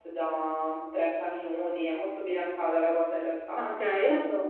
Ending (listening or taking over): listening